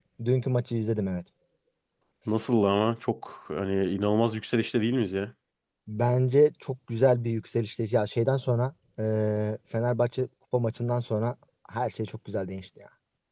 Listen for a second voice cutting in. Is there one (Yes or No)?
No